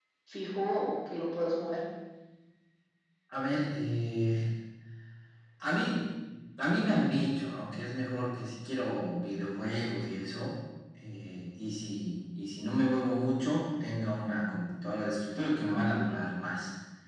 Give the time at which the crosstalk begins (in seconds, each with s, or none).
none